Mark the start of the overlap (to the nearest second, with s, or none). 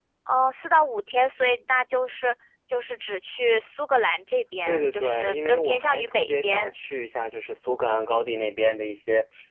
5 s